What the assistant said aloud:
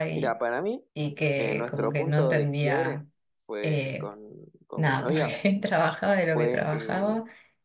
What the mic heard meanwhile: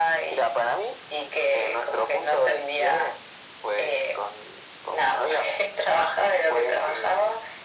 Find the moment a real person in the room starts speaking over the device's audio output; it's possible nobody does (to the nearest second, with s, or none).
none